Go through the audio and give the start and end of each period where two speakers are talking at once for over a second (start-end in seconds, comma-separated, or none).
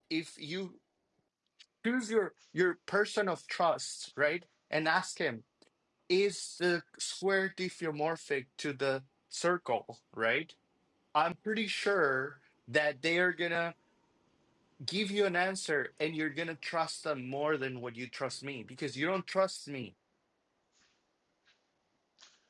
none